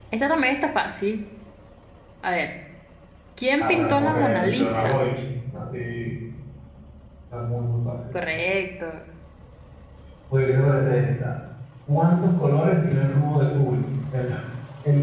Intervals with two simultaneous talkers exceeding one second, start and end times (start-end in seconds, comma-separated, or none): 3.6-5.0